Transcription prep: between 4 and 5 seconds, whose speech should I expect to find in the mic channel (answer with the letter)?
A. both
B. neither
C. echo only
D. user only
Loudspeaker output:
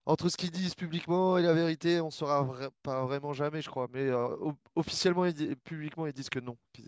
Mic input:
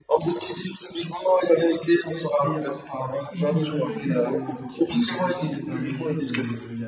A